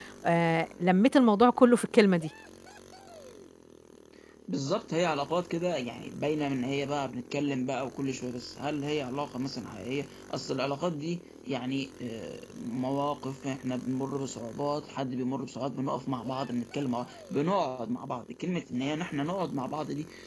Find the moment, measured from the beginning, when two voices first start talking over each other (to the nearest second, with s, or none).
none